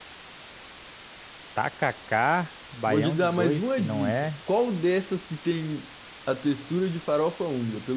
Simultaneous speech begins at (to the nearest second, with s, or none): 3 s